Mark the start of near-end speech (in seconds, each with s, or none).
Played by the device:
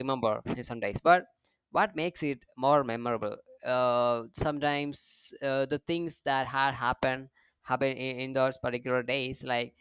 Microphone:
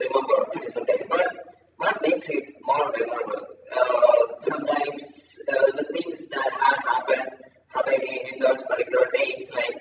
none